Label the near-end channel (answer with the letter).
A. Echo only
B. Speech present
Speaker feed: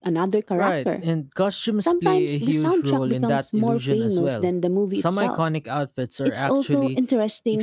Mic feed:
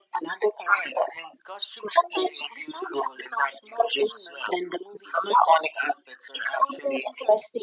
A